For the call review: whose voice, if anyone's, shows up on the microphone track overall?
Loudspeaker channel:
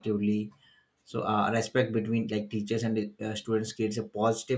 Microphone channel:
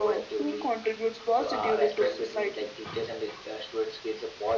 both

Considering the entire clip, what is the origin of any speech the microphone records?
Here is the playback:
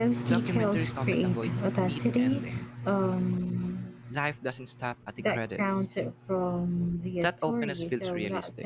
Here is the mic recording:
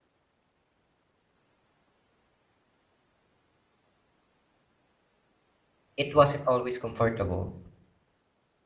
user only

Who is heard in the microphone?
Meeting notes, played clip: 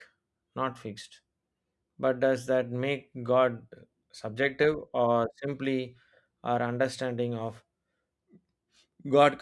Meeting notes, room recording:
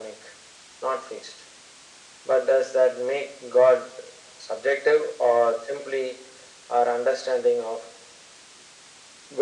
echo only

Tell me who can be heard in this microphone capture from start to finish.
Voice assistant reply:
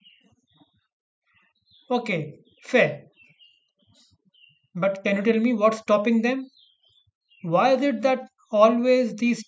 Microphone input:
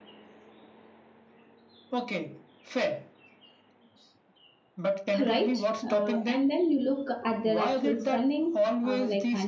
both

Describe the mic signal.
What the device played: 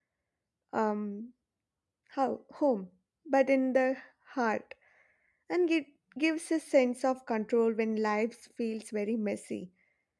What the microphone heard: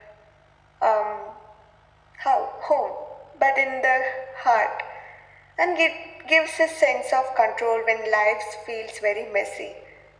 echo only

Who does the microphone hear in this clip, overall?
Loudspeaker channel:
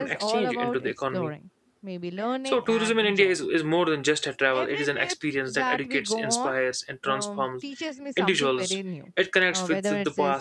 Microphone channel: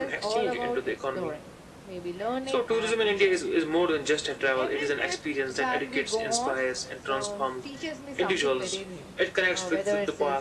echo only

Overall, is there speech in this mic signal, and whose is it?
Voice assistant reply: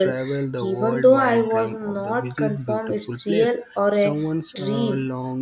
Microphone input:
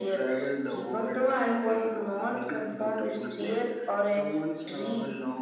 echo only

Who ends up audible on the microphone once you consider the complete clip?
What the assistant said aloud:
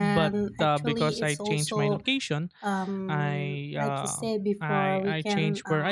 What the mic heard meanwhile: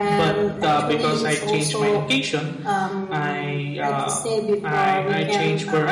echo only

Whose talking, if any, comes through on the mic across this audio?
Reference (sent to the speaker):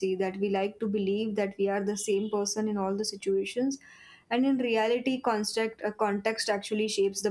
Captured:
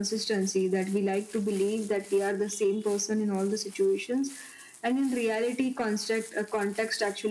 echo only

